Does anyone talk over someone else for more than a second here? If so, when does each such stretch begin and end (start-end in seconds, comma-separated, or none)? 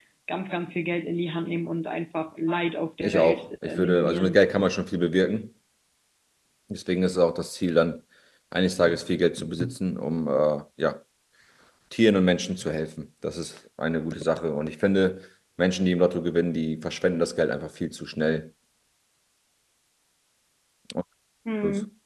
3.0-4.4